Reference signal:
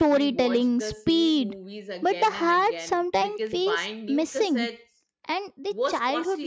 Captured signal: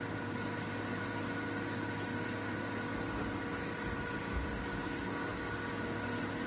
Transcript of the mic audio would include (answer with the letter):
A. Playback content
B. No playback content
B